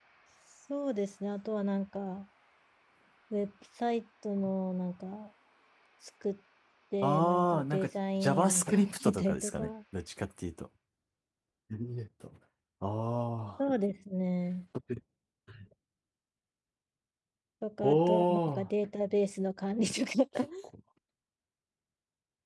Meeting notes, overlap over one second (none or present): present